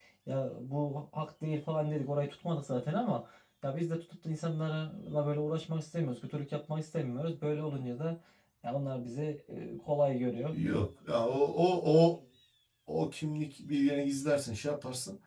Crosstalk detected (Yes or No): No